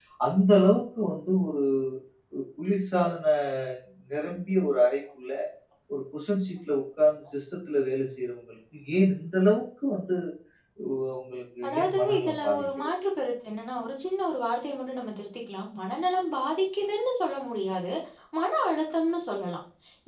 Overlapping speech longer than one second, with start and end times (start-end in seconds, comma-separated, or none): 11.7-12.9